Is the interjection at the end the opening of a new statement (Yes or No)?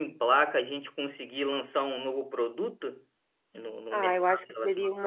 Yes